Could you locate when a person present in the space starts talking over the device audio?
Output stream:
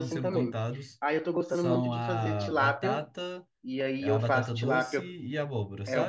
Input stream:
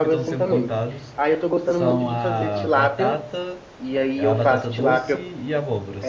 none

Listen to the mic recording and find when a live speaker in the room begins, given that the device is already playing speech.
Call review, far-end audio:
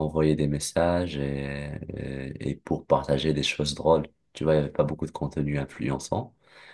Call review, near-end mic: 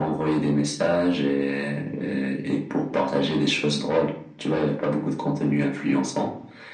none

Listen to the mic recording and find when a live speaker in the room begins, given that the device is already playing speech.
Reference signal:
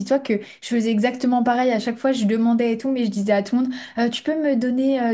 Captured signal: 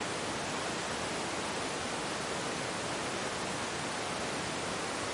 none

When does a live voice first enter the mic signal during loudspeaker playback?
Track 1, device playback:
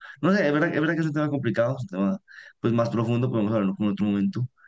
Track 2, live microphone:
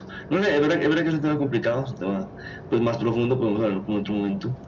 none

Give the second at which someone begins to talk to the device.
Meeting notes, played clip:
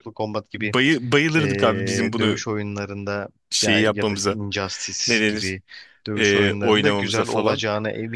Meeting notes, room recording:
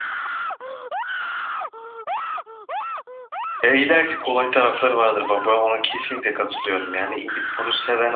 3.6 s

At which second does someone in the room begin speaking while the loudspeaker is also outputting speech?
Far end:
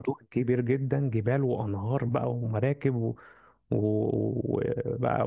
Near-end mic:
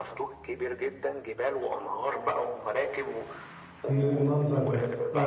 3.9 s

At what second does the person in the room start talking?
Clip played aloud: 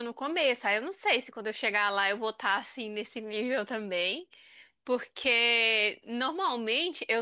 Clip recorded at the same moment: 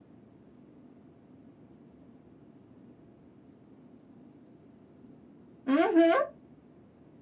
5.7 s

